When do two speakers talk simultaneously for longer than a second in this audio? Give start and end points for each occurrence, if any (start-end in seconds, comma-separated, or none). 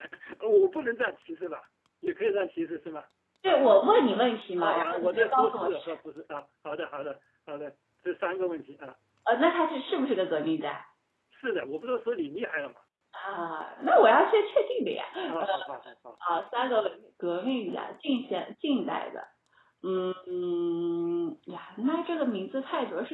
4.6-5.9